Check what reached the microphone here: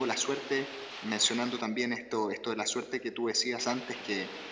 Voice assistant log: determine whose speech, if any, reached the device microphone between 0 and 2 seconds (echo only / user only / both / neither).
echo only